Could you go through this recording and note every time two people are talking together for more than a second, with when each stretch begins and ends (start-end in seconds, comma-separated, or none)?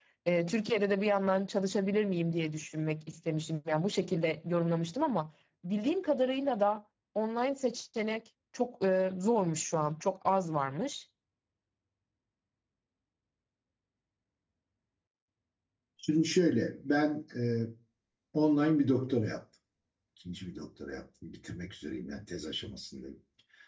none